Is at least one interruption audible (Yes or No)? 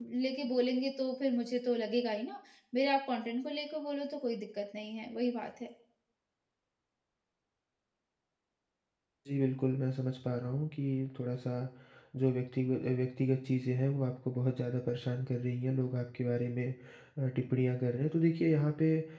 No